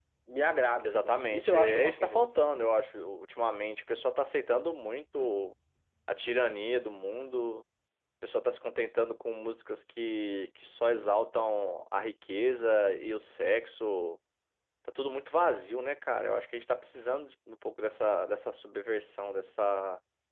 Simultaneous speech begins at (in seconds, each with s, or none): 0.8 s